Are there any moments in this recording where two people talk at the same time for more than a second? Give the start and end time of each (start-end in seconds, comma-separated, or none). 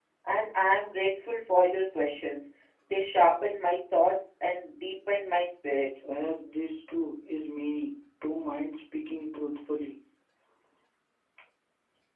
none